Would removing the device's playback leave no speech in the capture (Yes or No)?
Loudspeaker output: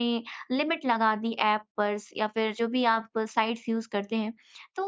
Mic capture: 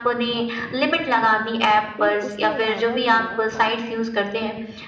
No